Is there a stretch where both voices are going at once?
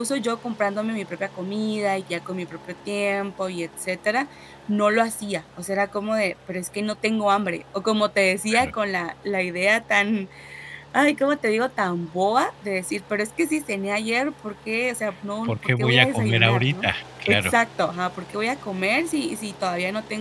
Yes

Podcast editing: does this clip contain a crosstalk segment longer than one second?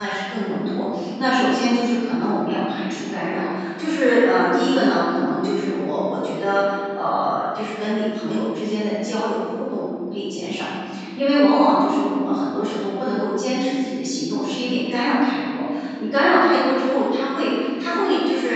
No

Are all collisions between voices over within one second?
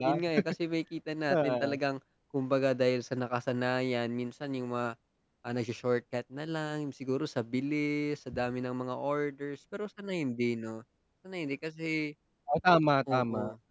Yes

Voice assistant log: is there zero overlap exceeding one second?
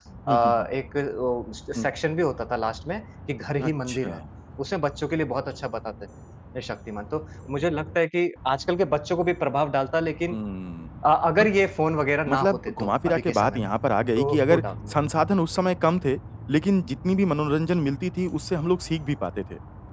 No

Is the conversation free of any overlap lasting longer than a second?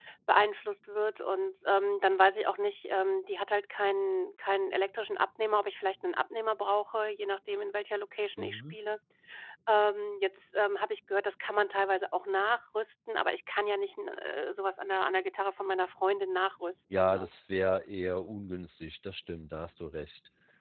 Yes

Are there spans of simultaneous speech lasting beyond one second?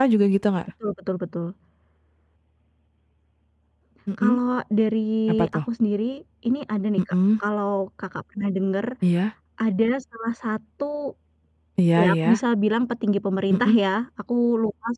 No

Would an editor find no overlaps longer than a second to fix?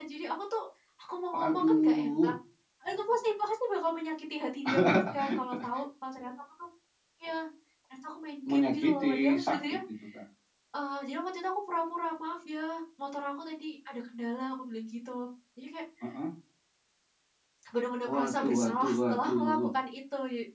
No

